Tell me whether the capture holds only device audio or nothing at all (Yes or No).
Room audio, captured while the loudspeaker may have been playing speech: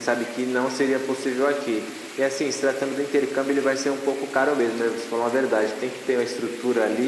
Yes